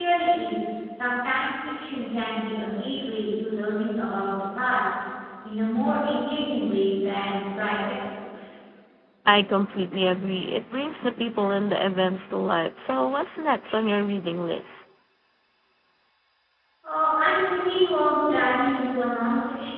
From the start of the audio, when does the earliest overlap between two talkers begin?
none

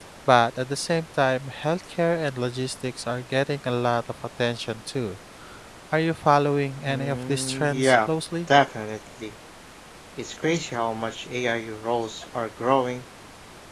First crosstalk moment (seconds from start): 7 s

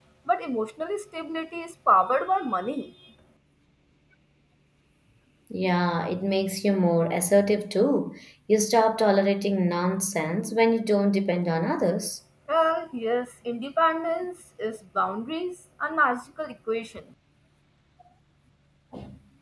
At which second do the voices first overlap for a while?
none

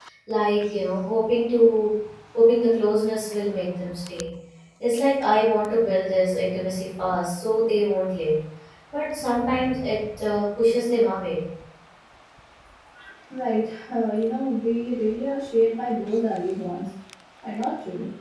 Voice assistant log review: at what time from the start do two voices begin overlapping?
none

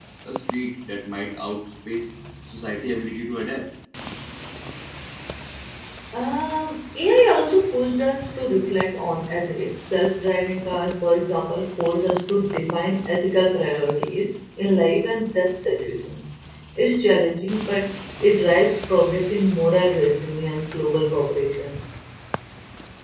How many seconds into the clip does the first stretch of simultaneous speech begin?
none

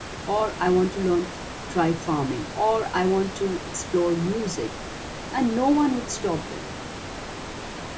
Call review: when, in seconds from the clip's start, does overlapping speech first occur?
none

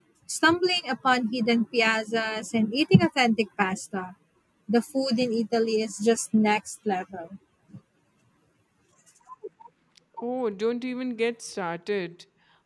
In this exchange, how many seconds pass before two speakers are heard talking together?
none

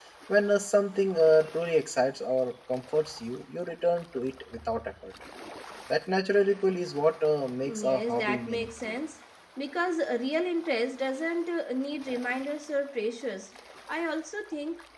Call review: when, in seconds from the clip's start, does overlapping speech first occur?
8 s

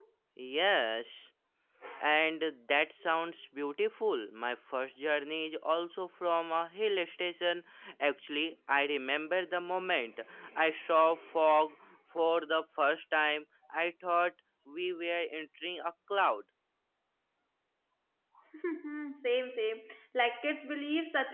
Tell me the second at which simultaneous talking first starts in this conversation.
none

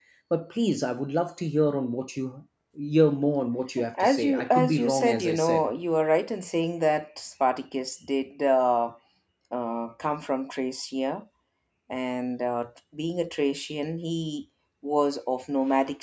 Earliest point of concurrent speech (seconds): 4 s

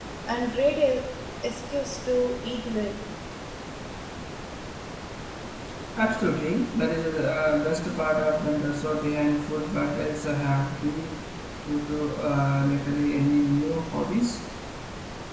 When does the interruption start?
none

